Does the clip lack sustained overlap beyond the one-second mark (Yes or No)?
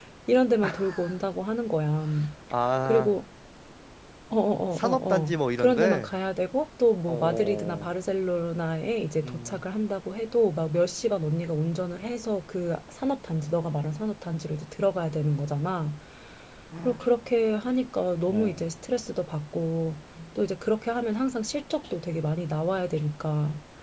No